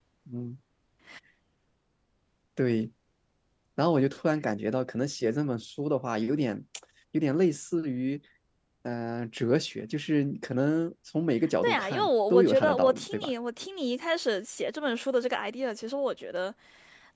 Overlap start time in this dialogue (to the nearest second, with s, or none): 12 s